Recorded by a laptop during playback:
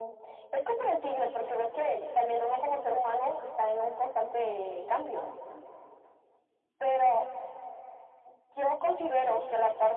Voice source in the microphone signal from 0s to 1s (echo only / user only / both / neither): echo only